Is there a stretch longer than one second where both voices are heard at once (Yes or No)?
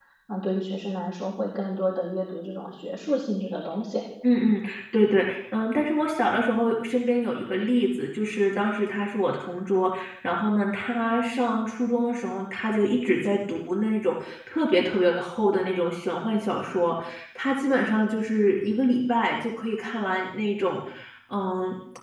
No